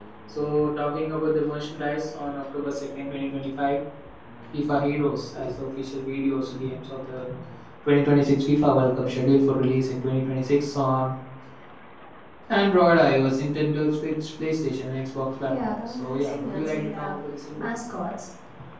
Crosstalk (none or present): present